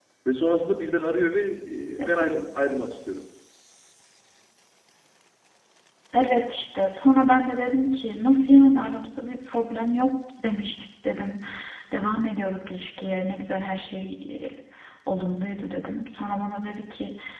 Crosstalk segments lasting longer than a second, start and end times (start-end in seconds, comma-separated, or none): none